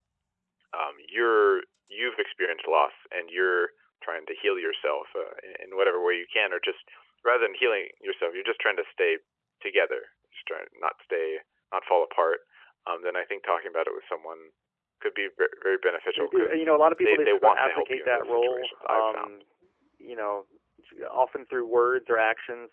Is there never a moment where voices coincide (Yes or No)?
No